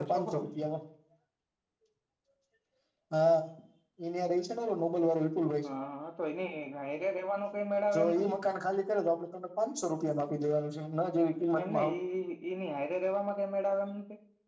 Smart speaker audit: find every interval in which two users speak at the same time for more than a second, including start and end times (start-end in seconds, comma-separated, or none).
none